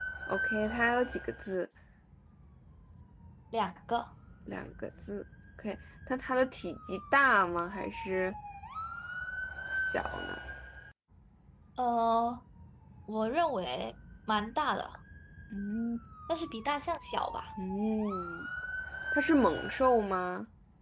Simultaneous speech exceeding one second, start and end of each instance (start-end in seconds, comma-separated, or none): none